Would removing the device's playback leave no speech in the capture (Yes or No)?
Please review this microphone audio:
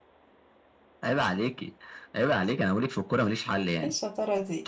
No